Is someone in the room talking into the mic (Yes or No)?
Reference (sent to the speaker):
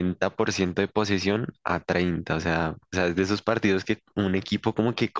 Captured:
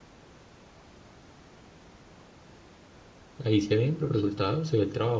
Yes